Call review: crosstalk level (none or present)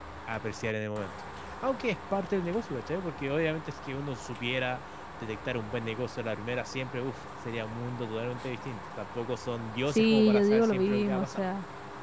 present